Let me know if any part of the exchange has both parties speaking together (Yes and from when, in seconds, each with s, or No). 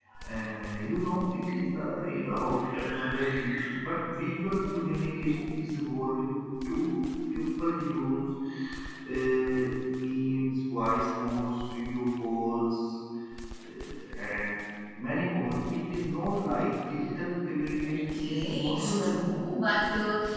Yes, from 17.8 s